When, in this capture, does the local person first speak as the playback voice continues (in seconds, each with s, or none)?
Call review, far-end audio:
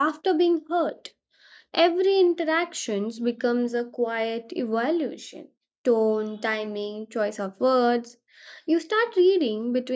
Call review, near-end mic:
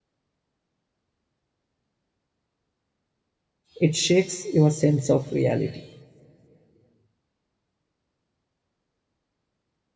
3.8 s